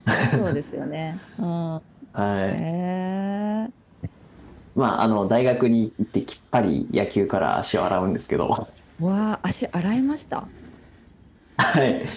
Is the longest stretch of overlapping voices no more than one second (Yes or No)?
Yes